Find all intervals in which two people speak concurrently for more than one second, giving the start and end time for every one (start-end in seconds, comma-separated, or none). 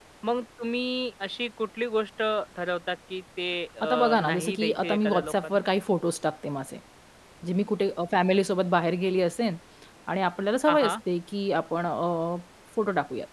3.8-5.6